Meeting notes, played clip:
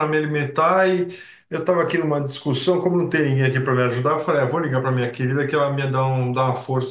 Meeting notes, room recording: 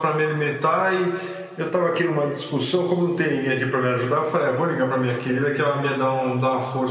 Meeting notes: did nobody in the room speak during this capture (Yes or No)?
Yes